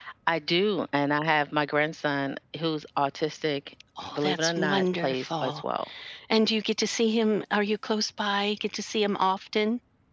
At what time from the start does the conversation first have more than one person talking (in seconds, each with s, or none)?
4.1 s